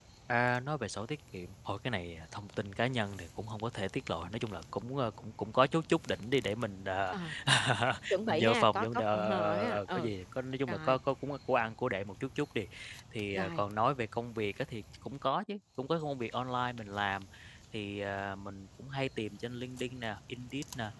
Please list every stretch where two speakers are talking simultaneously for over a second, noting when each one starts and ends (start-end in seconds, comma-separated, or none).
8.3-10.1